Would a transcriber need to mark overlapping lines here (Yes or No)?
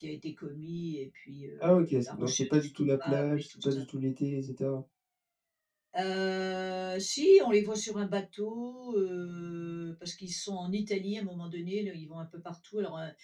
Yes